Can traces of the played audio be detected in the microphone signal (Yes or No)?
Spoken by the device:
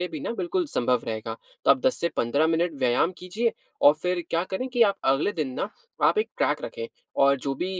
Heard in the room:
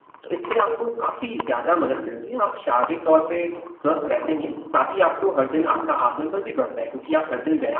No